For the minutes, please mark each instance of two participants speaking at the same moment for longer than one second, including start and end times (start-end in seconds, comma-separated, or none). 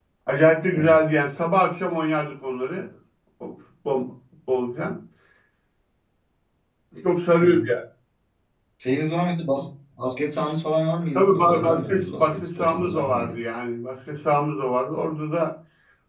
11.1-13.3